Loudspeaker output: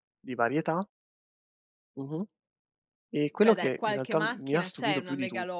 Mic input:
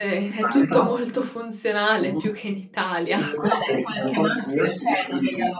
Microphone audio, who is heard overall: both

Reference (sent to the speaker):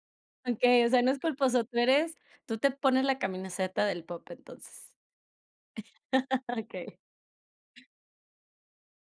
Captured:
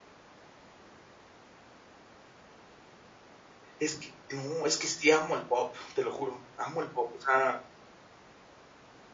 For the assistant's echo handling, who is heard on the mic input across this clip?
user only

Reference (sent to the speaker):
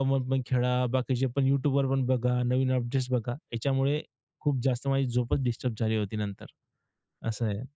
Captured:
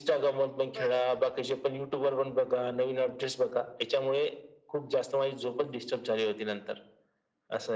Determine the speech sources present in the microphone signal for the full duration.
both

